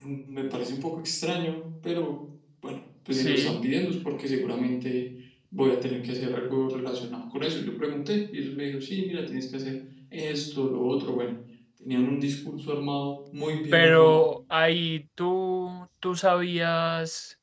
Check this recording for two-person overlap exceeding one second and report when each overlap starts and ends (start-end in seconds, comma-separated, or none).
none